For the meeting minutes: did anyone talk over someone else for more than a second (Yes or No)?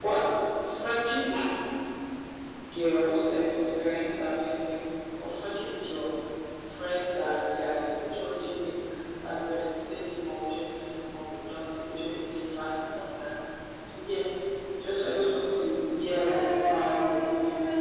Yes